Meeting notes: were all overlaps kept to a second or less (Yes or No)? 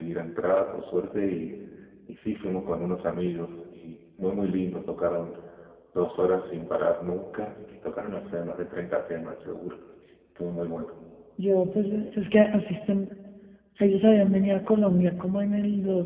Yes